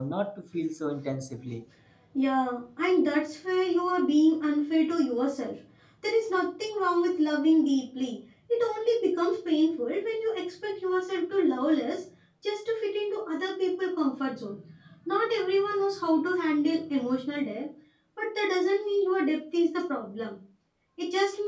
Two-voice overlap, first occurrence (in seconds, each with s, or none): none